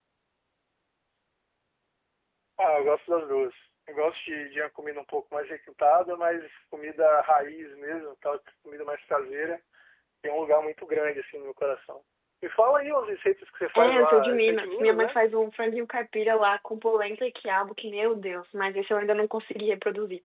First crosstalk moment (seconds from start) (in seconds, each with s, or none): 13.7 s